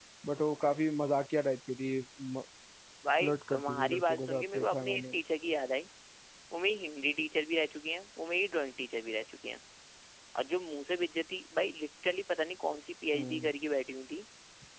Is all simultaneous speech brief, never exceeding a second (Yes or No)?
No